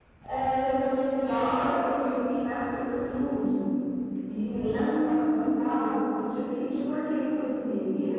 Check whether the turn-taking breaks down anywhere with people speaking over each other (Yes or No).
Yes